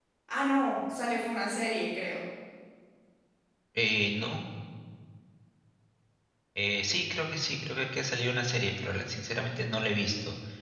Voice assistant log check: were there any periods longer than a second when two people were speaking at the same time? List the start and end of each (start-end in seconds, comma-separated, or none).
none